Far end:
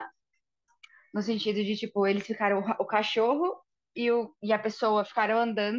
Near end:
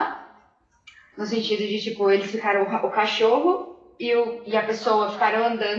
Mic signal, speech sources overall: echo only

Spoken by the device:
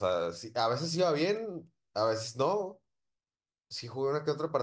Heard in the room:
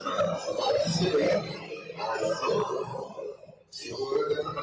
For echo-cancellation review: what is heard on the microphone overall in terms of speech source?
echo only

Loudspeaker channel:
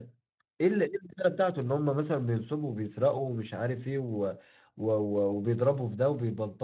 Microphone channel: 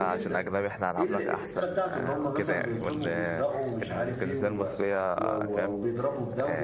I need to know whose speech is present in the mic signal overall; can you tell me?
both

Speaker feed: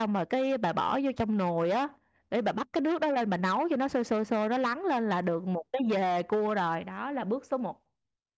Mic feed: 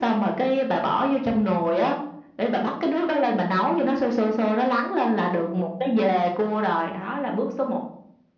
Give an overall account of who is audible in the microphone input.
echo only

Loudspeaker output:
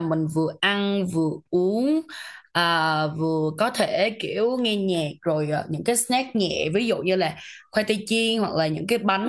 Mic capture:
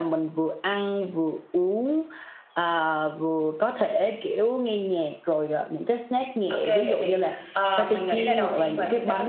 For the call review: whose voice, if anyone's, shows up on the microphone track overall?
both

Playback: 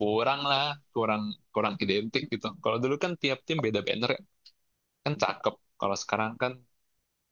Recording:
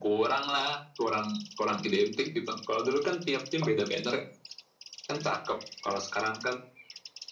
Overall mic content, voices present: echo only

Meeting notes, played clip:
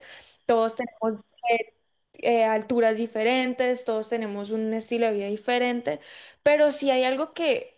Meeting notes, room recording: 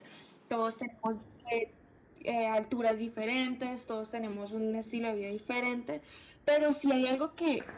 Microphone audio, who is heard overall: echo only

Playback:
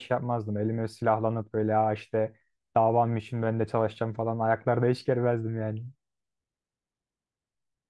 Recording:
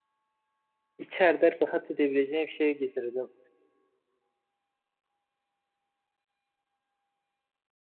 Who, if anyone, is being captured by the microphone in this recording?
user only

